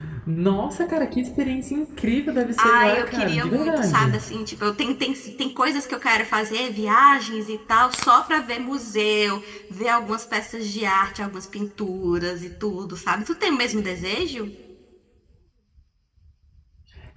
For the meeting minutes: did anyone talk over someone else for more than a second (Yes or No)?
Yes